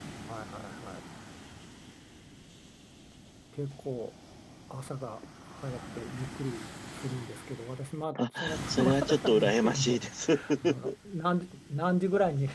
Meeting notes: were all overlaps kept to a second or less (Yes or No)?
No